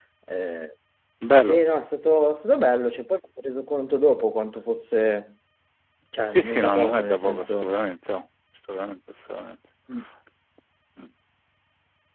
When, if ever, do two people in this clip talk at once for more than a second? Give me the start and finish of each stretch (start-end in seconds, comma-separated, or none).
6.2-7.7